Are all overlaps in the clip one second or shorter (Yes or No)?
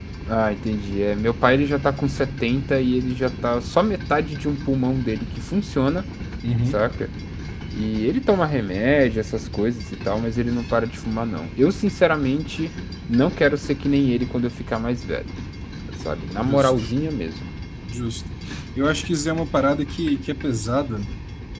Yes